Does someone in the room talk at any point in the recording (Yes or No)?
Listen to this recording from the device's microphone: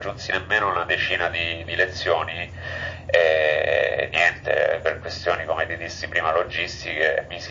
No